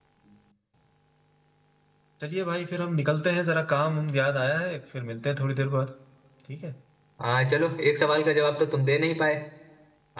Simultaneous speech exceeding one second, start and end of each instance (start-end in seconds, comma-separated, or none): none